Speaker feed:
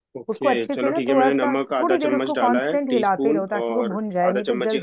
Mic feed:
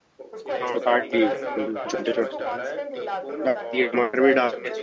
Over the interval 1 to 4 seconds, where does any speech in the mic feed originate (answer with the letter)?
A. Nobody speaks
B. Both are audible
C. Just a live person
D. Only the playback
B